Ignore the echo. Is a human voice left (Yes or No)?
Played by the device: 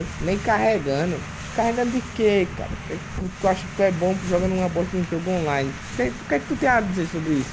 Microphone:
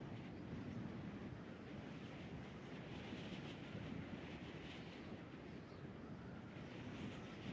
No